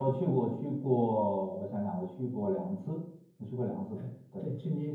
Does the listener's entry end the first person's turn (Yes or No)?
Yes